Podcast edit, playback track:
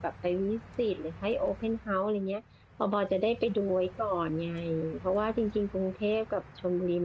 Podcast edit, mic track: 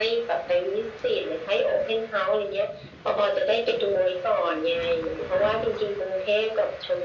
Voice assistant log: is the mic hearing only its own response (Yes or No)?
Yes